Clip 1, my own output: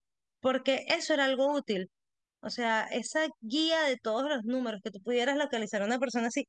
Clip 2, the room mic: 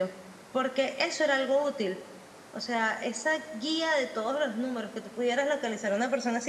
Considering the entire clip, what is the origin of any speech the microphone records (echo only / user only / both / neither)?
echo only